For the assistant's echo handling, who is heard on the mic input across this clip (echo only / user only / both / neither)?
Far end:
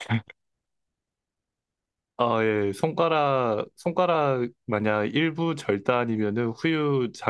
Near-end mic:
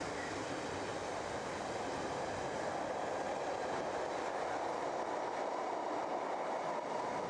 neither